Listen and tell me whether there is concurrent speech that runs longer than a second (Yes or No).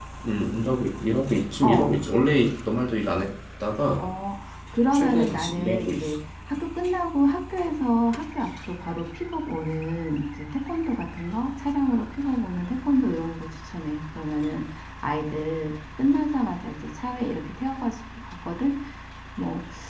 Yes